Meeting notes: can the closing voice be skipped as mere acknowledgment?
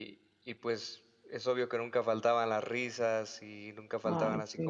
Yes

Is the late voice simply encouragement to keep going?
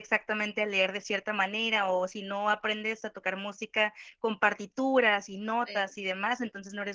Yes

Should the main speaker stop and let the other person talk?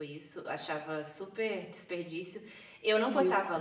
No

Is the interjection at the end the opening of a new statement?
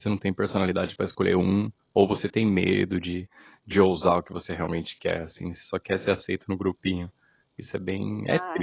Yes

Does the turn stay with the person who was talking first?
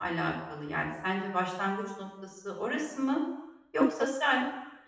Yes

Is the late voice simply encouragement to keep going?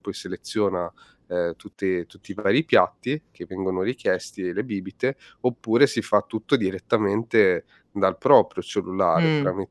Yes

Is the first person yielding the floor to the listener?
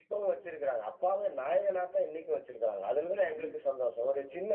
No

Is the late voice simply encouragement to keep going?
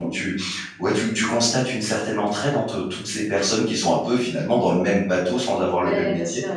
No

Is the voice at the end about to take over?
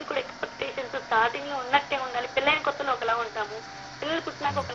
No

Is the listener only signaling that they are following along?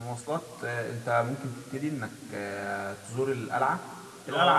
Yes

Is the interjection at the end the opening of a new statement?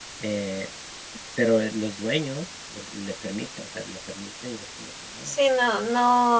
Yes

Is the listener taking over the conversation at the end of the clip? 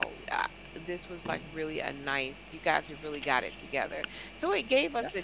No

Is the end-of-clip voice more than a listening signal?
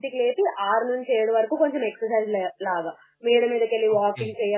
No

